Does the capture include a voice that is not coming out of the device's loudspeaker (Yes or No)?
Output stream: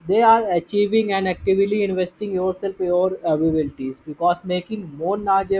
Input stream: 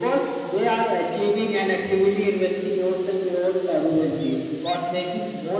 No